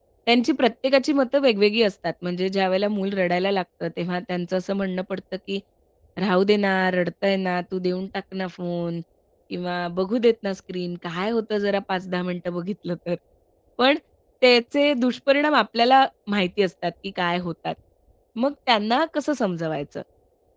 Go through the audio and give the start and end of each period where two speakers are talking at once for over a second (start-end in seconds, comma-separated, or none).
none